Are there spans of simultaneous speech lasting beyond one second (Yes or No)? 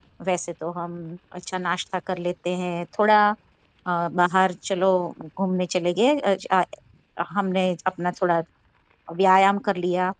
No